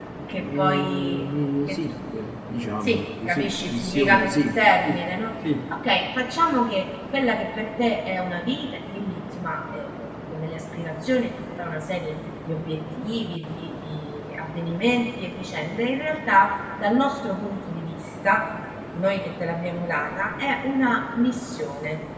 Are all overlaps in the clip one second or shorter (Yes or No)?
No